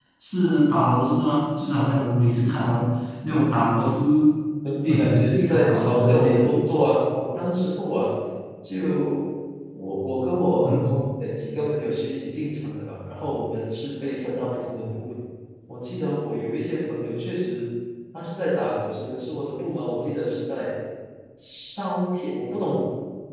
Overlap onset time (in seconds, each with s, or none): 4.9 s